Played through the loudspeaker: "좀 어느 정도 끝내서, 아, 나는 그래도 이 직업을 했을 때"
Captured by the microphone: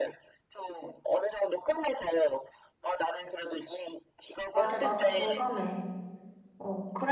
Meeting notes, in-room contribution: present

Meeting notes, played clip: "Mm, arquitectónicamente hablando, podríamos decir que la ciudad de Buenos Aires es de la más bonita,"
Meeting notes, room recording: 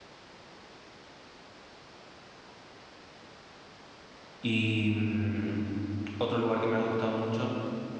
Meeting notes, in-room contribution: present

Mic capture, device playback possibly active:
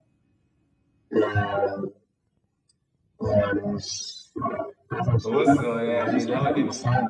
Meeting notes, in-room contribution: present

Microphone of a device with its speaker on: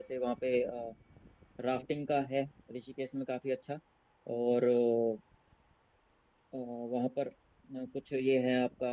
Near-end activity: present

